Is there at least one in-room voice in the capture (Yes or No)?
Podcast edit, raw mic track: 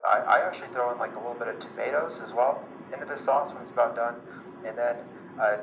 No